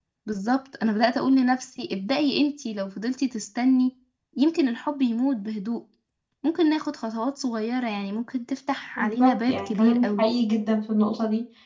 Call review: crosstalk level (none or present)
present